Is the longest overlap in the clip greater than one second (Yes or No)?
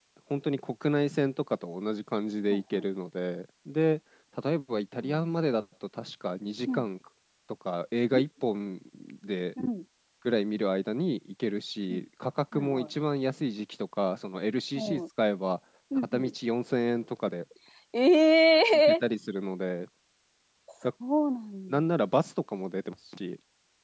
No